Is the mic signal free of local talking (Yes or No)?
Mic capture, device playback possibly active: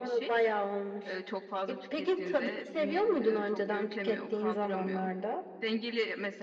Yes